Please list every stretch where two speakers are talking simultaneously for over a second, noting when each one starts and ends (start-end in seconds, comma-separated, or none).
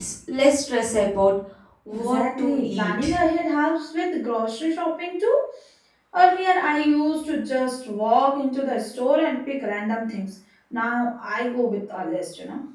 1.9-3.2